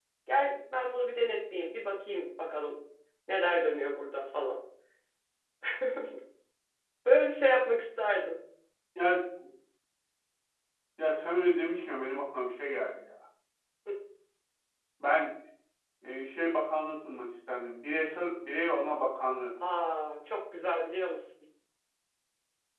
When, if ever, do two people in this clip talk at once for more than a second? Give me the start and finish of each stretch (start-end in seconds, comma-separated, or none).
none